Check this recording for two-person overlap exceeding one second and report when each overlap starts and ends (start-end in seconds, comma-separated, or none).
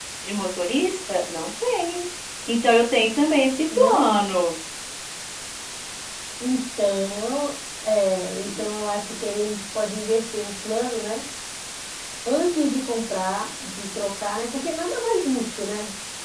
none